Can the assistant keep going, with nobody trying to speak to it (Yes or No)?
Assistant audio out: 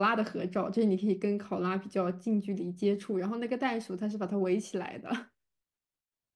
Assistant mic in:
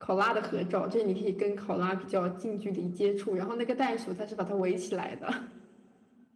Yes